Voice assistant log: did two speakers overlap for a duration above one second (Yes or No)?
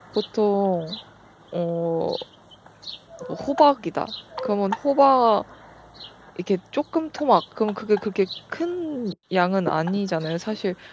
No